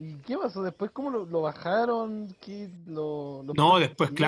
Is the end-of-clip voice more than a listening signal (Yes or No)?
Yes